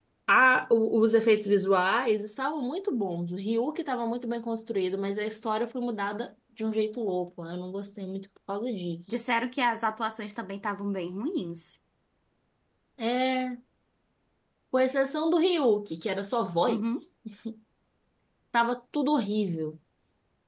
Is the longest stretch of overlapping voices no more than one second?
Yes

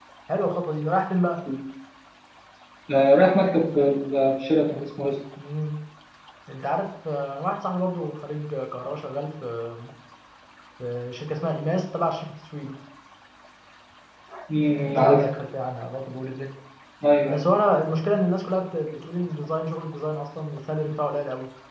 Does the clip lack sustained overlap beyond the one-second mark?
Yes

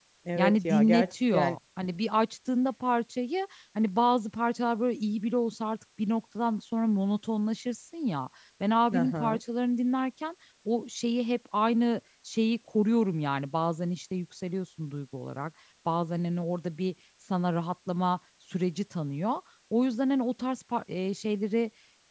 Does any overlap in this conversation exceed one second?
Yes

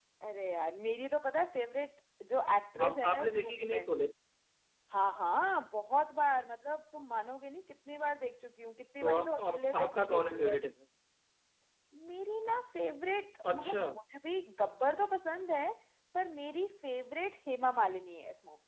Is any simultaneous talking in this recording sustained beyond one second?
Yes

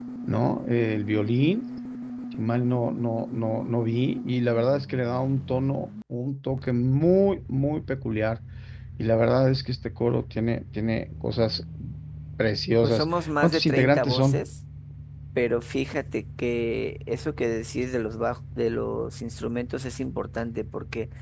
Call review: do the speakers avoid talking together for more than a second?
No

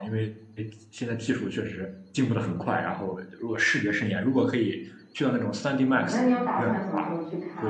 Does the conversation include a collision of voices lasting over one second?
Yes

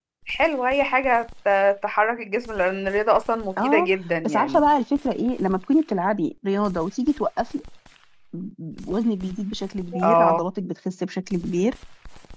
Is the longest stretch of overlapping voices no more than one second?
Yes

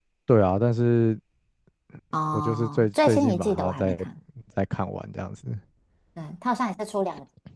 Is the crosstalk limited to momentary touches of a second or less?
No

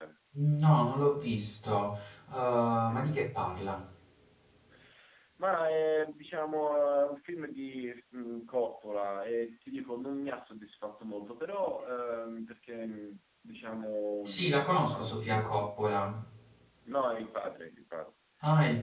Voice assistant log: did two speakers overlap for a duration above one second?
Yes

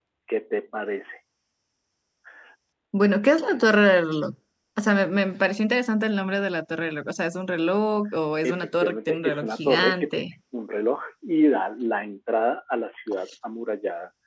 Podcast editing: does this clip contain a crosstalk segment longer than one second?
Yes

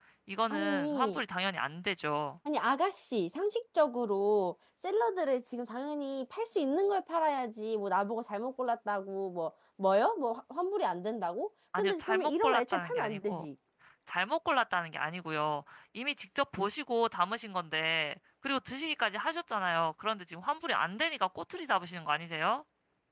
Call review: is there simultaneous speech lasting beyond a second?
Yes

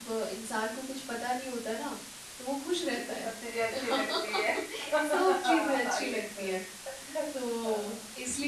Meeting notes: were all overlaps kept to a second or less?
No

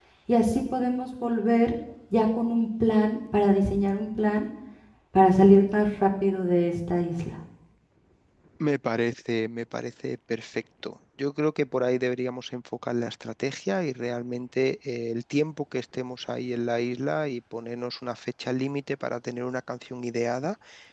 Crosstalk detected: No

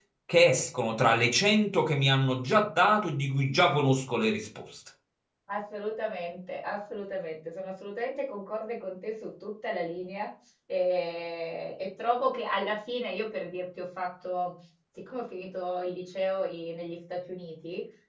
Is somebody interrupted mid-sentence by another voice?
No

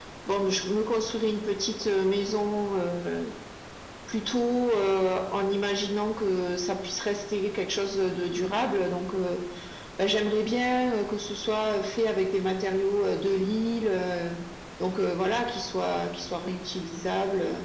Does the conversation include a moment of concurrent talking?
No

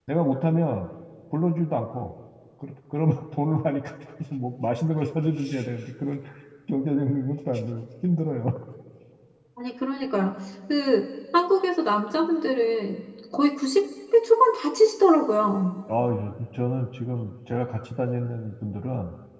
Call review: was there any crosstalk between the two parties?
No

